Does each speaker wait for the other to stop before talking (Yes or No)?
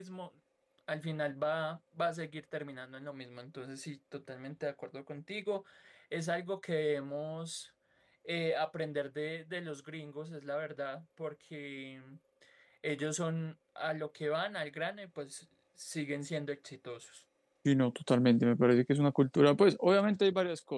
Yes